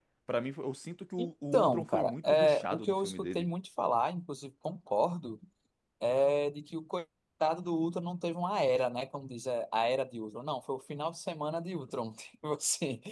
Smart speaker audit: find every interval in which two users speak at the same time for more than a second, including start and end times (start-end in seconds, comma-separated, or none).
1.2-3.5